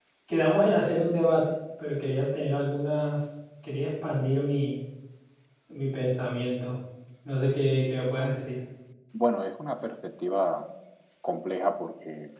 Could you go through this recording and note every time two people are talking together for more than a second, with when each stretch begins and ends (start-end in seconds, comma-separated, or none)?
none